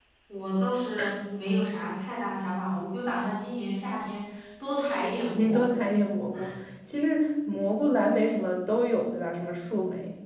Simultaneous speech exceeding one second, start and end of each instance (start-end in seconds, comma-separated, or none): none